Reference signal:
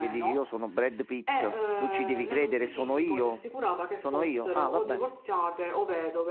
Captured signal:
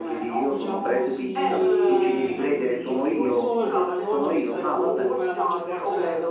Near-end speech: present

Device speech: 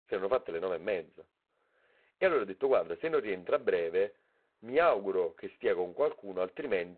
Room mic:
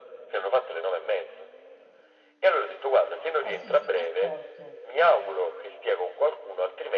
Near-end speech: present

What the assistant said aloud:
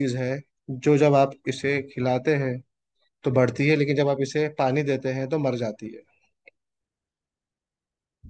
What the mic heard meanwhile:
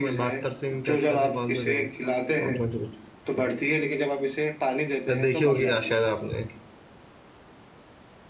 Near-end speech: present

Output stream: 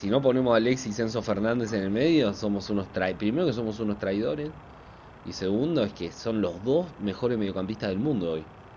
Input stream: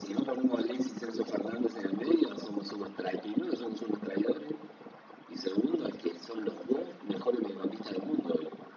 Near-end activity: none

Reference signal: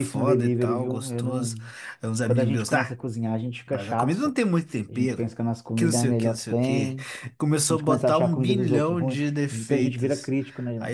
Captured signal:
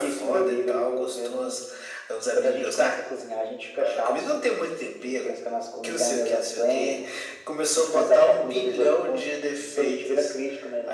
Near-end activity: none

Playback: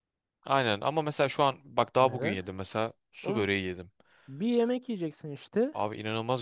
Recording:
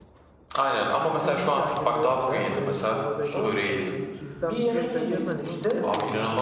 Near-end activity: present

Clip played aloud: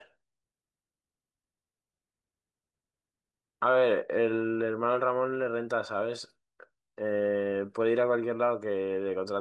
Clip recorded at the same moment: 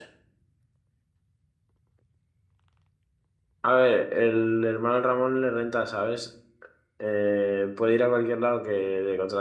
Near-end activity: none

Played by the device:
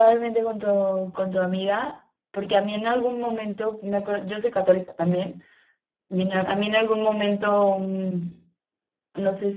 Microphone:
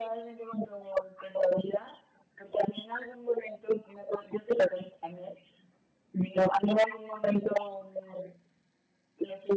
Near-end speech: none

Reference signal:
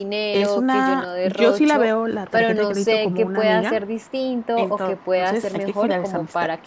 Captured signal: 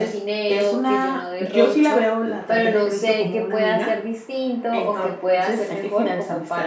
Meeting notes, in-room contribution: none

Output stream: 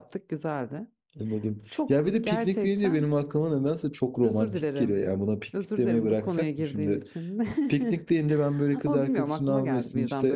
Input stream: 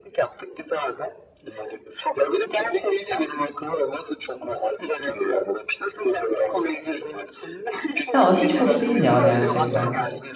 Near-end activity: present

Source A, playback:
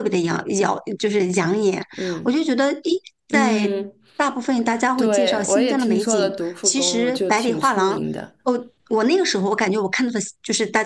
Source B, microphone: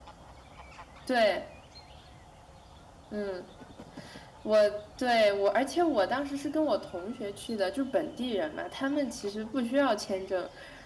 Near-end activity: present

